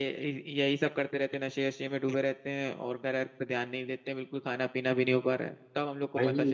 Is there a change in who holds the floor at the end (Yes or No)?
Yes